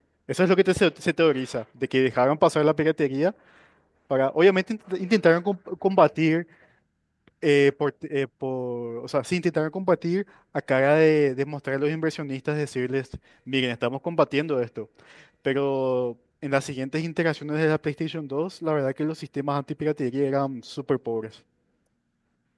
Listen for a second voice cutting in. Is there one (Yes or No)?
No